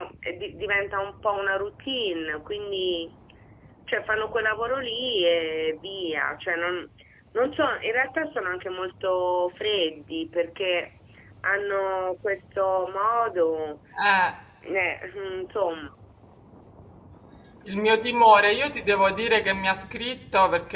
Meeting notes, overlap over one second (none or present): none